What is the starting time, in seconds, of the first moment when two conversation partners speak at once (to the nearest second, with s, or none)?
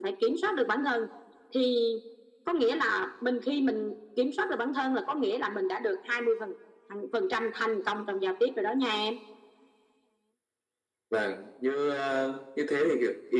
none